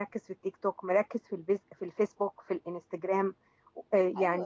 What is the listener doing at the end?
taking over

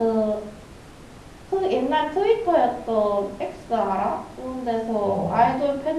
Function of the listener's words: listening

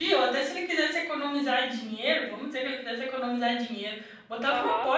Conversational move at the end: listening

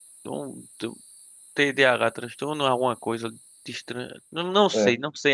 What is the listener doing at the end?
listening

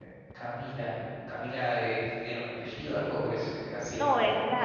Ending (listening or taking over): taking over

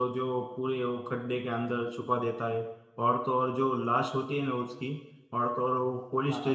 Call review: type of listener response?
listening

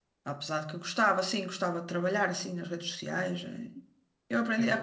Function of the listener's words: listening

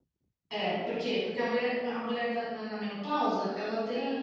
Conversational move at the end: listening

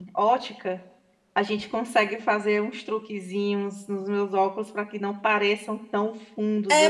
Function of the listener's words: taking over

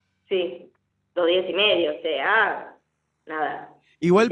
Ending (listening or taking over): taking over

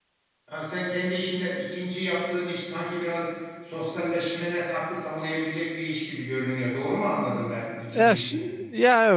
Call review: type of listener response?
taking over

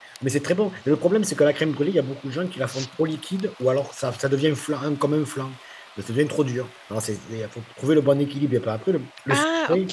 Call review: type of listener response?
listening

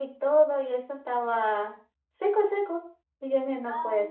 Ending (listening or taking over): taking over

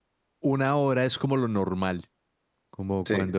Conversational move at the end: listening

